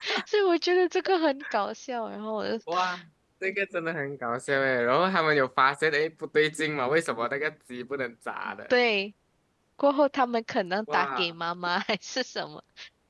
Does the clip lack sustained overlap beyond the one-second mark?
Yes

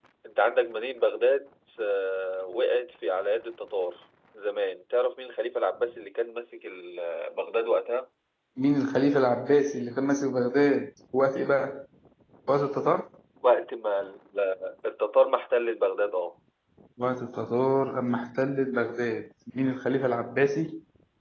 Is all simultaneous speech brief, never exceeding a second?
Yes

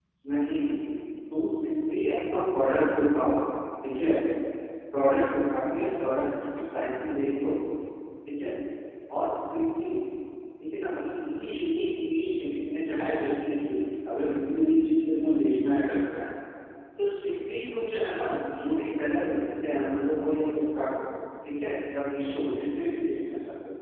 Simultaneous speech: No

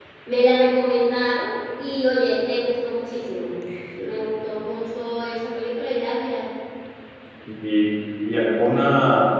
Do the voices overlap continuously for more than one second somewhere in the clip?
No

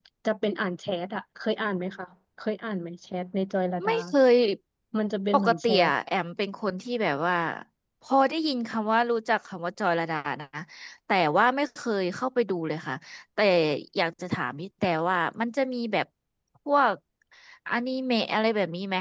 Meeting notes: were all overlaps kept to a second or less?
Yes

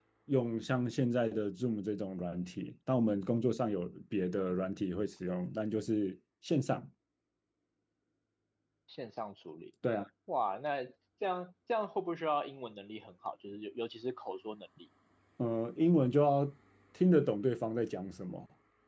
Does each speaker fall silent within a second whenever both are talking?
Yes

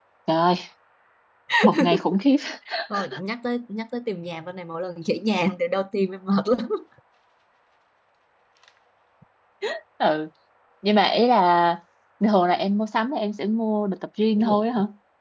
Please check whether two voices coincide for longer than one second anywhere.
No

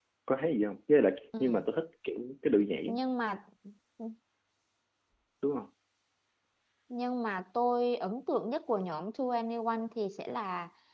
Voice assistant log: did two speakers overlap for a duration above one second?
No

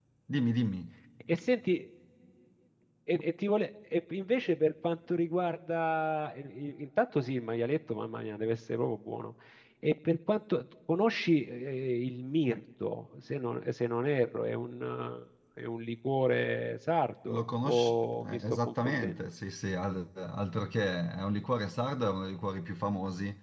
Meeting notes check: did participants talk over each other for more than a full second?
Yes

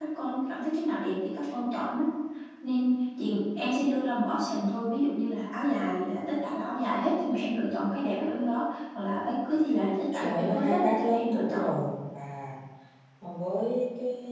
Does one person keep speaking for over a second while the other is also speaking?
Yes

